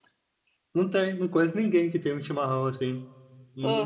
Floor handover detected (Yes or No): No